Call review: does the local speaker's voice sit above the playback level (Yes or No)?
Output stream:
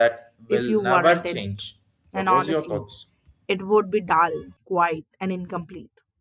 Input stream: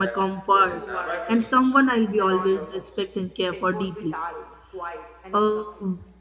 Yes